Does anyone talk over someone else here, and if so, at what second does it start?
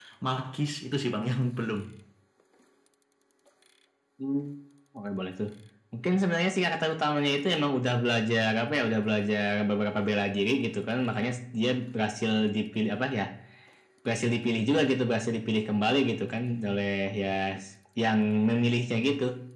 none

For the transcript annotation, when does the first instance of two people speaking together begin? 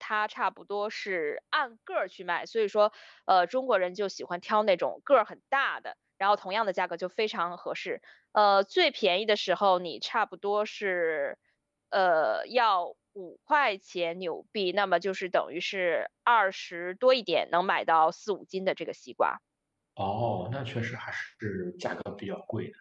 none

